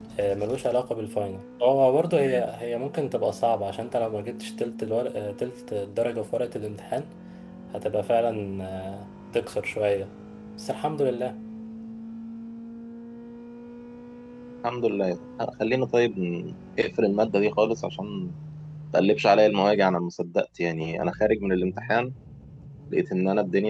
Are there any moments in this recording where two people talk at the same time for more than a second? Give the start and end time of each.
none

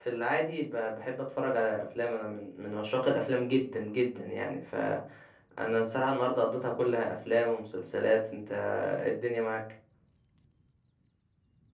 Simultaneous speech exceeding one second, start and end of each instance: none

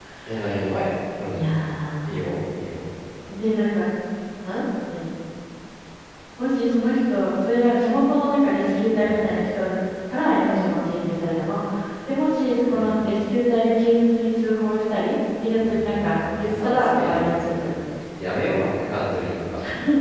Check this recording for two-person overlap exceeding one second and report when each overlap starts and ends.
15.5-17.7

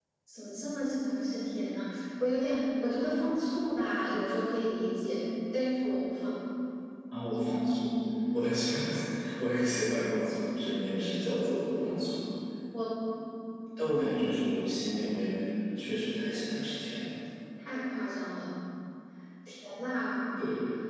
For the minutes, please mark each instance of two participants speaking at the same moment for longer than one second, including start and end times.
none

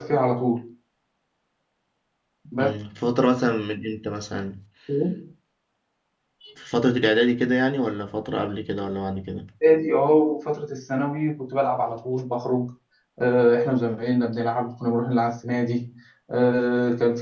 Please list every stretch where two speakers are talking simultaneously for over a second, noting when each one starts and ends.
none

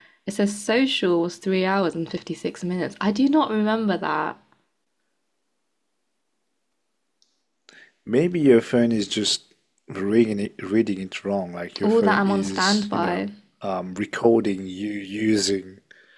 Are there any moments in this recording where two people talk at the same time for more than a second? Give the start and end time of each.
11.8-13.2

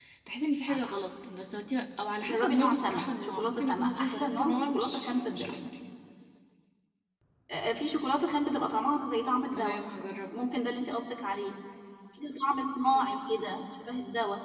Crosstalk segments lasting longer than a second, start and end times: 2.2-5.7

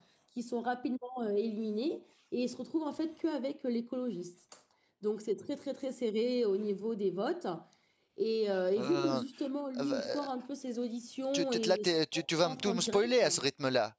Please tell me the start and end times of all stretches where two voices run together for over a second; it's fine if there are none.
11.3-13.2

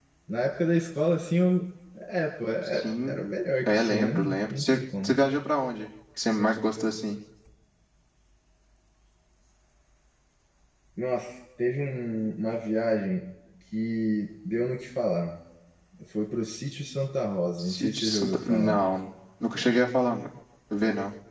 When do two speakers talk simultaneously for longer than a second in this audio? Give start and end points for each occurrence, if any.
3.7-5.2, 17.6-18.8

